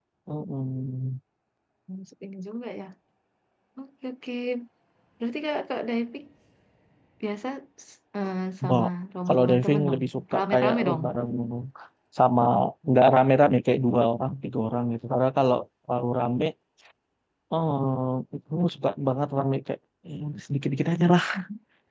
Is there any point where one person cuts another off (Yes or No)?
Yes